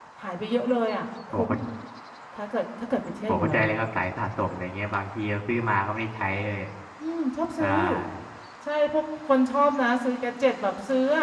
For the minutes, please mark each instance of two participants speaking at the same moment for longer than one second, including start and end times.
none

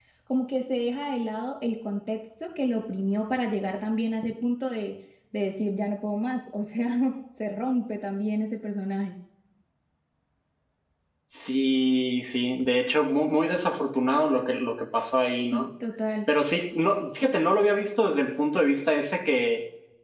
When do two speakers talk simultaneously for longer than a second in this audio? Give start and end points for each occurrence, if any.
none

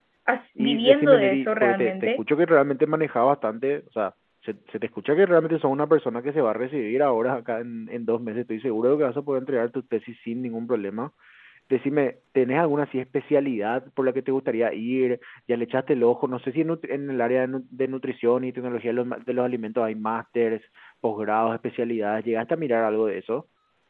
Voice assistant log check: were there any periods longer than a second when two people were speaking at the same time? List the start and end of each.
0.6-2.2

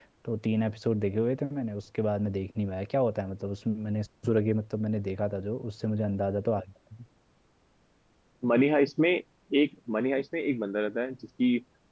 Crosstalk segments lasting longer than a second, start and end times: none

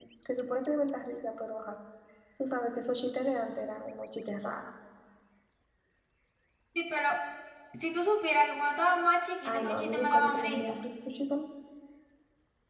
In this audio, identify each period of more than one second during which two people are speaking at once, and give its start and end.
9.4-10.8

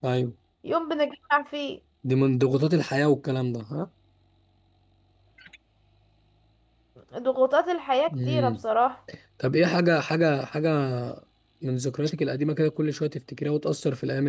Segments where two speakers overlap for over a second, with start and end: none

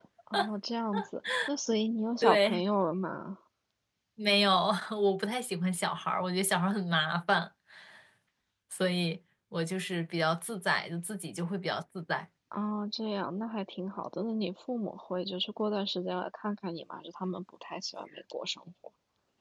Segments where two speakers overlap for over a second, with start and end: none

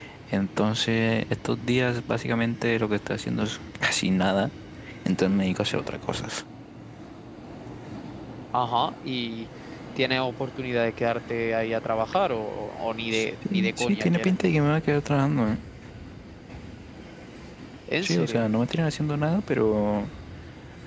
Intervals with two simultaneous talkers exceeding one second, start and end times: 13.1-14.4

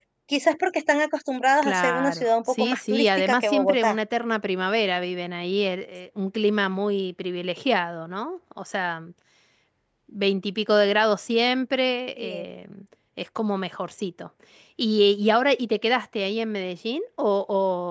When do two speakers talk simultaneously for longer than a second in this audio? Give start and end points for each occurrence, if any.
1.6-4.0

